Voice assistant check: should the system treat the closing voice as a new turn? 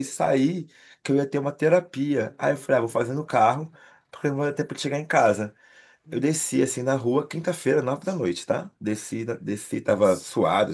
No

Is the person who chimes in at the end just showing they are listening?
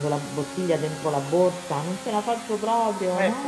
No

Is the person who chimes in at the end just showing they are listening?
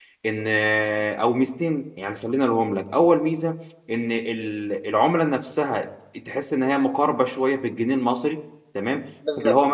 Yes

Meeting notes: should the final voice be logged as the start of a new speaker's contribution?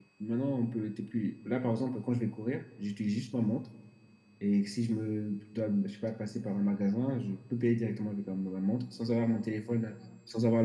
No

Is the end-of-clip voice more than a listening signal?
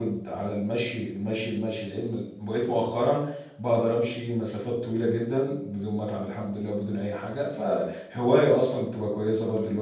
Yes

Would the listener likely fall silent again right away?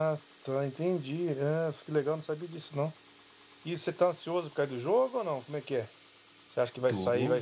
Yes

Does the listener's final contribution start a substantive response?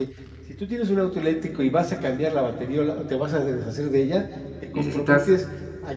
No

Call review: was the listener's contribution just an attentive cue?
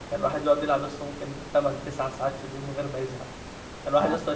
Yes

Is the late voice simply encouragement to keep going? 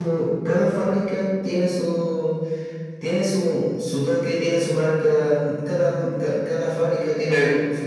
No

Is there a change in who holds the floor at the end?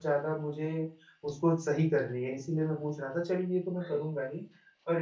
No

